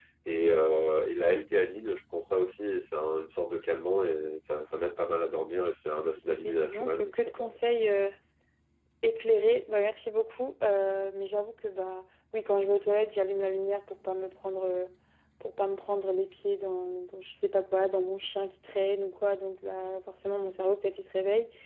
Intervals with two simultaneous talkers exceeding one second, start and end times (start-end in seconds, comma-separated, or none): 6.3-7.5